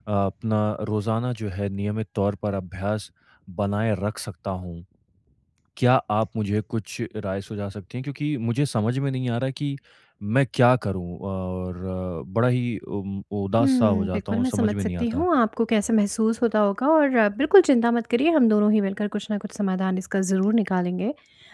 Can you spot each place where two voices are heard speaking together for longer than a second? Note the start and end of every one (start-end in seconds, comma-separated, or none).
13.6-15.3